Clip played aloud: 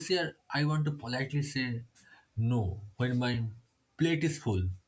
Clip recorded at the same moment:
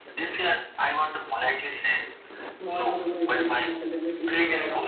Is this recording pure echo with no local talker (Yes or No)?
No